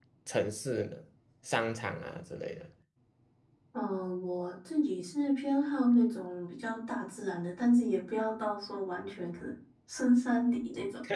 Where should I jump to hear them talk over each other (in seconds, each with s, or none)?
none